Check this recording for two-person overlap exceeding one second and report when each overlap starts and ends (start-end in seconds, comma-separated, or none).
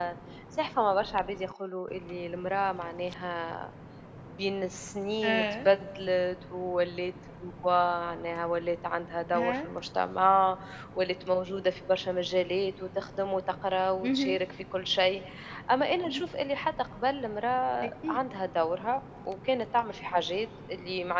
none